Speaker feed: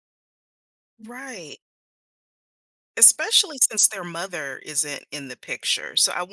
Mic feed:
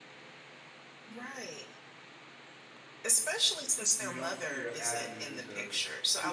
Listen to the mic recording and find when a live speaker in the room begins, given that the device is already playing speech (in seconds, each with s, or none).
3.9 s